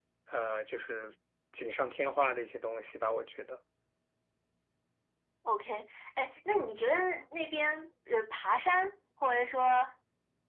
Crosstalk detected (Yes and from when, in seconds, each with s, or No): No